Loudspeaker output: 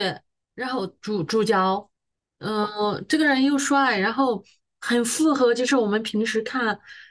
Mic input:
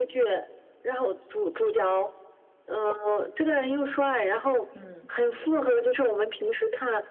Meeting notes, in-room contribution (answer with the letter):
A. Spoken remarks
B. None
A